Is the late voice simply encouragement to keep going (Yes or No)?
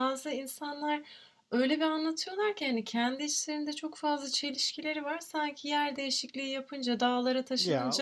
Yes